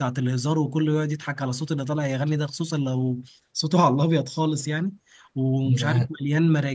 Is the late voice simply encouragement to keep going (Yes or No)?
Yes